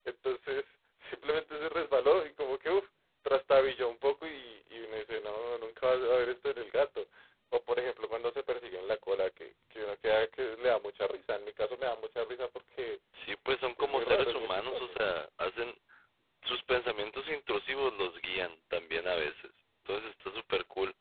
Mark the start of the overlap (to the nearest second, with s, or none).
13 s